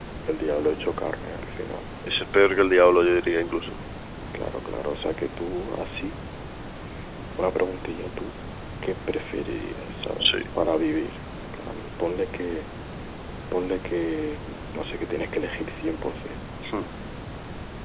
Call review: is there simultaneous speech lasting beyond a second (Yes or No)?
No